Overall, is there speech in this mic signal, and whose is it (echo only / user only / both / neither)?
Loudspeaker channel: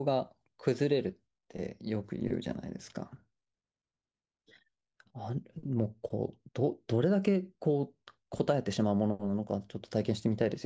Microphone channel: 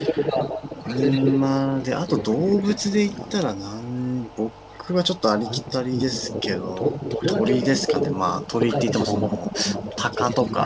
both